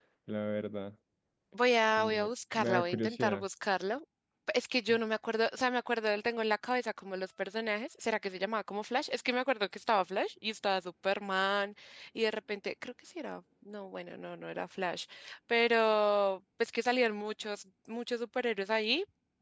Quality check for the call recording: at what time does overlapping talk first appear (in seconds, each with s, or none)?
2.0 s